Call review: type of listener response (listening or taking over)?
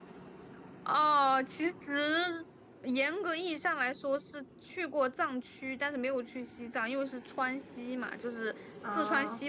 listening